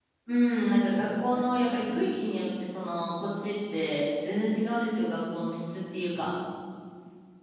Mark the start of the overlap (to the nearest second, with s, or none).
1 s